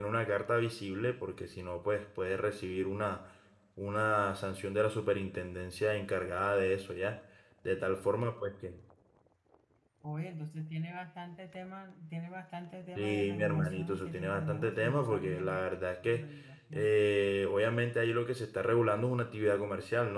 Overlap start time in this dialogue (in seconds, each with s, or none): 12.9 s